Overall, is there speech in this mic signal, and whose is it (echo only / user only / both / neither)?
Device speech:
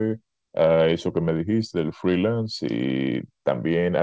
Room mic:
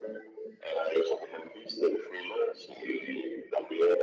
echo only